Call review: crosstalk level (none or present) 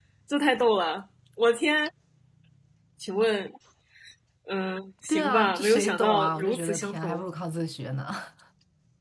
present